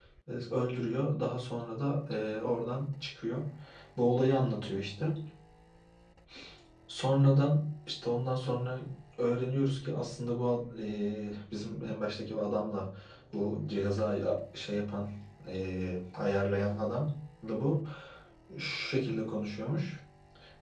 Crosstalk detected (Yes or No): No